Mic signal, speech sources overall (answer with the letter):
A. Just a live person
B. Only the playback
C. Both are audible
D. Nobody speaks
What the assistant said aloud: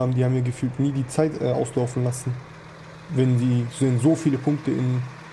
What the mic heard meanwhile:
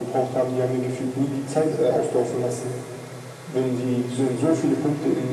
B